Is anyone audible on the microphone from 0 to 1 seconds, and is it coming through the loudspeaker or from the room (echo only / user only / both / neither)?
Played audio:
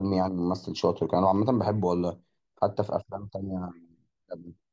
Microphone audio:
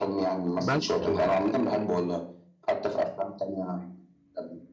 both